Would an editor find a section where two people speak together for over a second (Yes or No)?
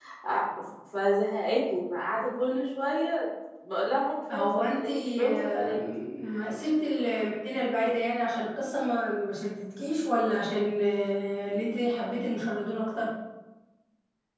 Yes